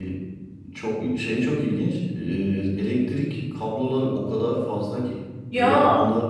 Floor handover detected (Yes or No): No